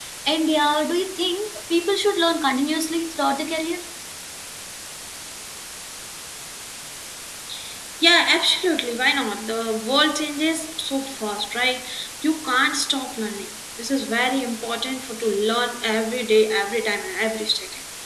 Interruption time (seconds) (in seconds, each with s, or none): none